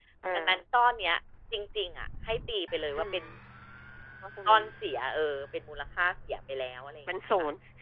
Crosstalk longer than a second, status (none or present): none